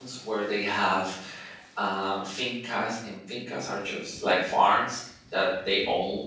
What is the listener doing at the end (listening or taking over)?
listening